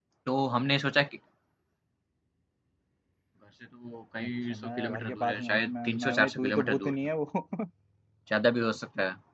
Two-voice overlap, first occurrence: 4.2 s

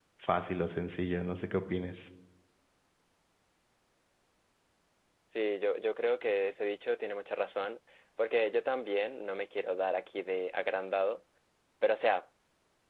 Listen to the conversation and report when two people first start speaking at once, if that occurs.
none

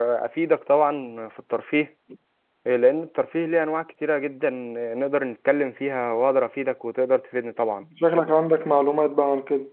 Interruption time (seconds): none

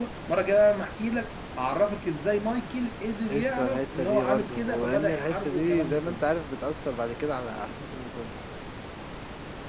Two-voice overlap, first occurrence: 3.3 s

